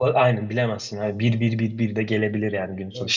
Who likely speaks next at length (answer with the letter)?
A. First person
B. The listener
A